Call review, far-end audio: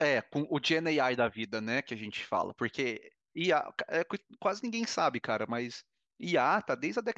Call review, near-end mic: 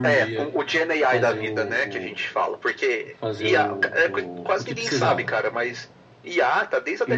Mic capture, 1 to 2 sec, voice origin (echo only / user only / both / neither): both